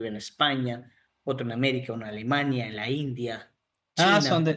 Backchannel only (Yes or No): No